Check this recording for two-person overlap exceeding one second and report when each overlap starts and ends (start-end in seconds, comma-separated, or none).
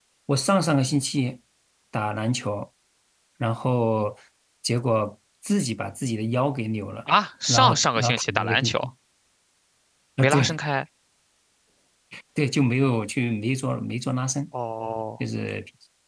7.5-8.9